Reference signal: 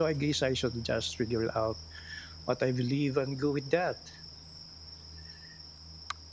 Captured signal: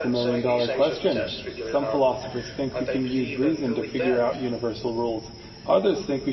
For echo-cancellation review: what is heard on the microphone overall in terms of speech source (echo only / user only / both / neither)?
both